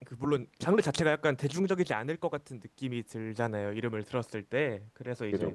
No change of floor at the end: Yes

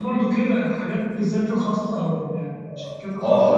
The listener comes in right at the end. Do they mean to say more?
Yes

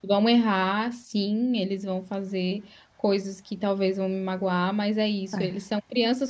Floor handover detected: No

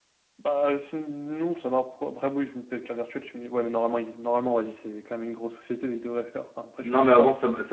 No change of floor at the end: No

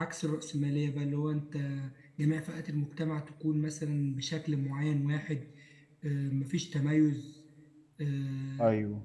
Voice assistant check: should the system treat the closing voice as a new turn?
No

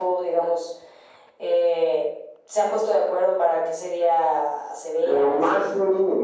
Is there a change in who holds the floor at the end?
Yes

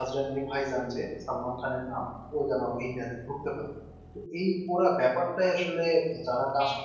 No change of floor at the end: Yes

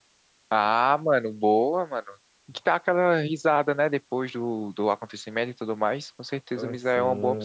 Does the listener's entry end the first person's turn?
Yes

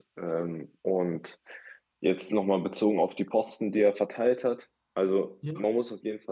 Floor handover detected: No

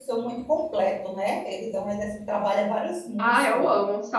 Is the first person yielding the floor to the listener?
Yes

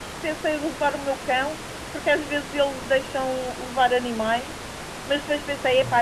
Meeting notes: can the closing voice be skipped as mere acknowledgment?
Yes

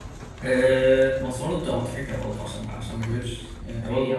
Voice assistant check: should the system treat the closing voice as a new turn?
Yes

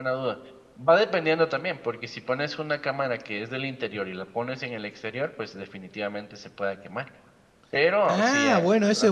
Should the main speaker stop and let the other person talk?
Yes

